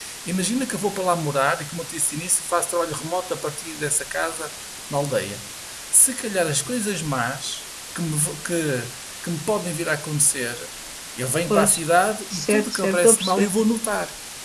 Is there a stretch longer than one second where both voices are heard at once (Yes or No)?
Yes